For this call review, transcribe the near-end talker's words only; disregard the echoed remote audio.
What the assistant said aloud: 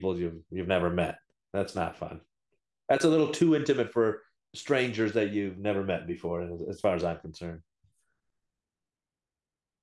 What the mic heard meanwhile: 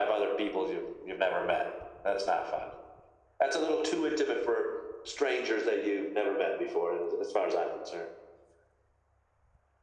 none

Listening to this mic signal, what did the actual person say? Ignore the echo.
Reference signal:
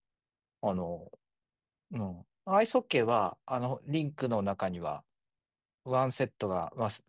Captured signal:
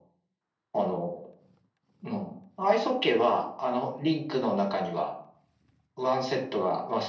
none

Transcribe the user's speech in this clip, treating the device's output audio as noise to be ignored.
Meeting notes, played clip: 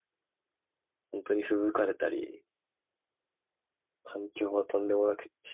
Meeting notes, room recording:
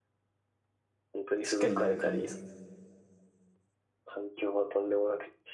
しっかりやる感じですか

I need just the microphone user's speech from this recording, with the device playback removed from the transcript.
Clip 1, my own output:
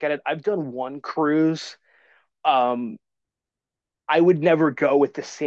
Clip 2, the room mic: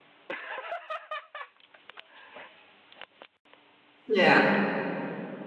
Yeah.

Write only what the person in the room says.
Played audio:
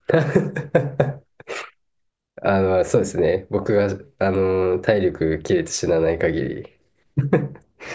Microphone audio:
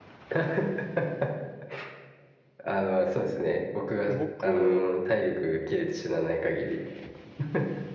僕、

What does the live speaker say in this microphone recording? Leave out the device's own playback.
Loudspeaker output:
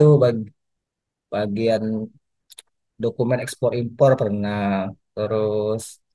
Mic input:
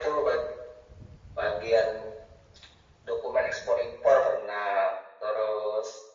none

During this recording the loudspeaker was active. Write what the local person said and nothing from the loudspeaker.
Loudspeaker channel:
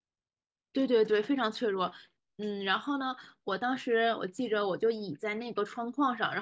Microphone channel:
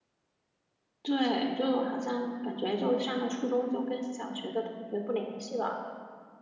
对，就好像感觉就上了初中就跟小学的同学不联系了。

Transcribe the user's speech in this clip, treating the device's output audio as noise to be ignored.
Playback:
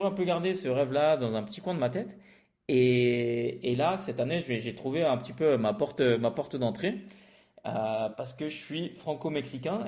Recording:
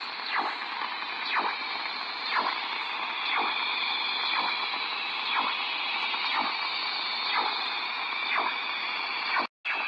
none

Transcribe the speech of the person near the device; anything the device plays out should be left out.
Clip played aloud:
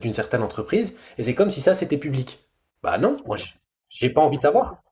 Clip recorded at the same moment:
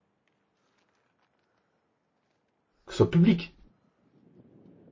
que ce soit public.

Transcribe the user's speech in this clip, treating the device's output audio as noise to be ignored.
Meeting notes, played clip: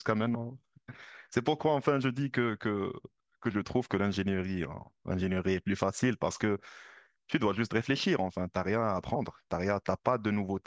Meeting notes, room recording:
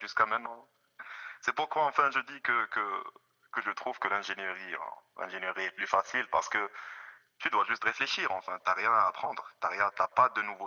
none

